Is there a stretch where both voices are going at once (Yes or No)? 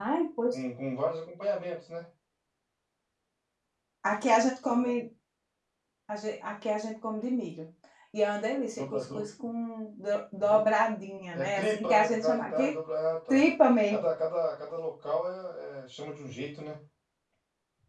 Yes